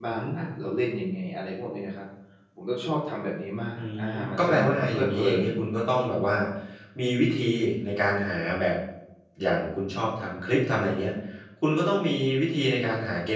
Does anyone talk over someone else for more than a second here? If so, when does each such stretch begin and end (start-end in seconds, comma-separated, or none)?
3.8-5.5